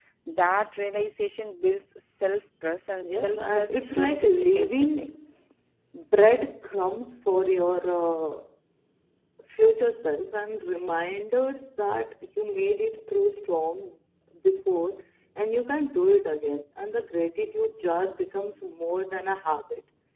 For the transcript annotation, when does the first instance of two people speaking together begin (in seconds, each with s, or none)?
3.1 s